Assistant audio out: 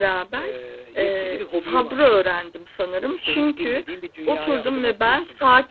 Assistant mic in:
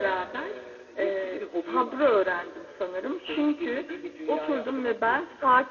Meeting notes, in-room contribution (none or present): none